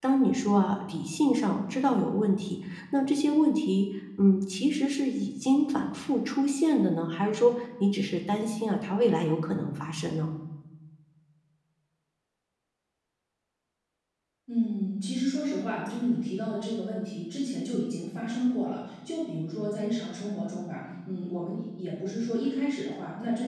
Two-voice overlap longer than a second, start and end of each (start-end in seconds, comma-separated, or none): none